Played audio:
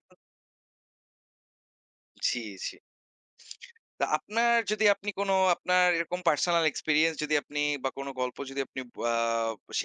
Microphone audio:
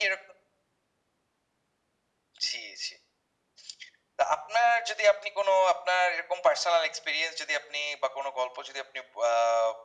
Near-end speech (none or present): none